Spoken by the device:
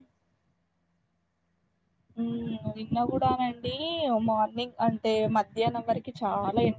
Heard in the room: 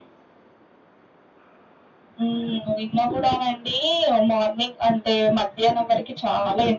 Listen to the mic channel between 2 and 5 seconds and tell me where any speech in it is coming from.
echo only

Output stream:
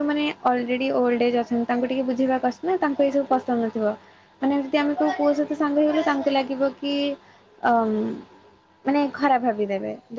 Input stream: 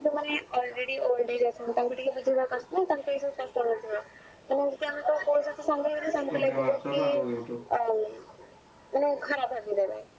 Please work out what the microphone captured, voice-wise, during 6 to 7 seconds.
both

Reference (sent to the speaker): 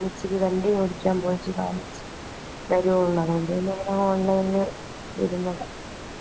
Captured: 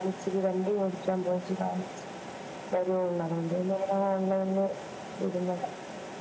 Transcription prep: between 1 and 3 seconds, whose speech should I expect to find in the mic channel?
echo only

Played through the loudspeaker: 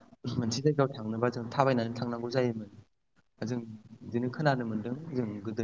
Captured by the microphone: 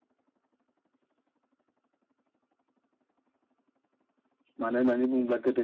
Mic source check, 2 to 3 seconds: neither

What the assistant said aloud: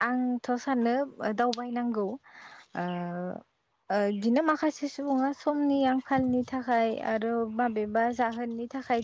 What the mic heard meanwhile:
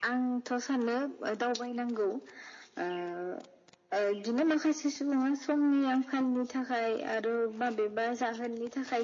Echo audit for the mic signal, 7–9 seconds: echo only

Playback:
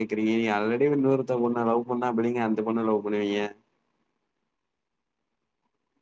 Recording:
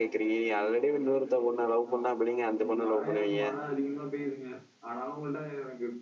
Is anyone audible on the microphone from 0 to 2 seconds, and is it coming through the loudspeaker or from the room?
echo only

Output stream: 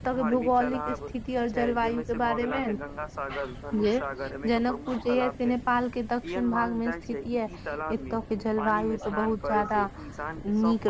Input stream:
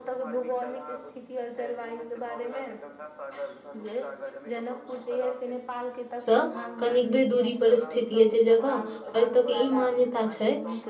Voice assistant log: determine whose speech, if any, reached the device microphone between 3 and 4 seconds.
echo only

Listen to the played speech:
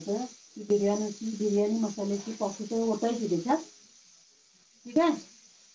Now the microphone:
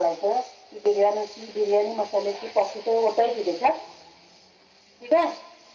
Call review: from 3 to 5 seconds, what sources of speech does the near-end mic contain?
echo only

